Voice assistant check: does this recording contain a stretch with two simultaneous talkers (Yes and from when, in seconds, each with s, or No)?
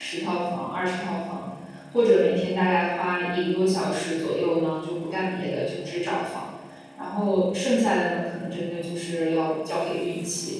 No